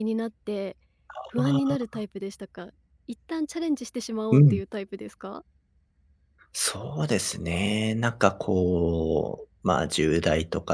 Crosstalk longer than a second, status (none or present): none